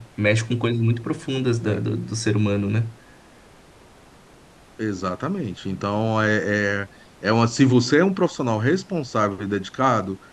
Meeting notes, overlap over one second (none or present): none